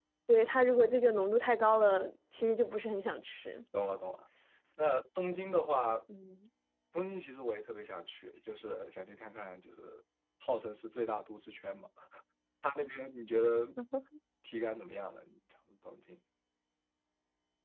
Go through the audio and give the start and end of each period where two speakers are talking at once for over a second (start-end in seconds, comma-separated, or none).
none